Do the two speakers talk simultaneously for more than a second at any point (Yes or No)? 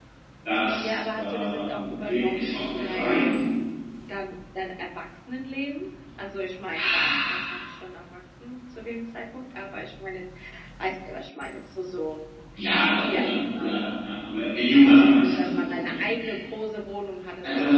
Yes